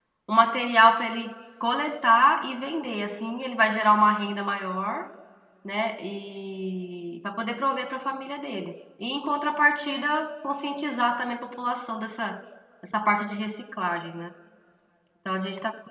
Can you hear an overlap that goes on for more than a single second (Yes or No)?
No